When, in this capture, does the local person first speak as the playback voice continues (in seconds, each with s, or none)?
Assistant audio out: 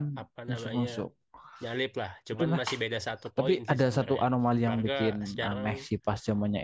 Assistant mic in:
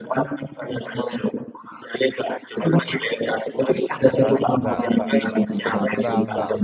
4.1 s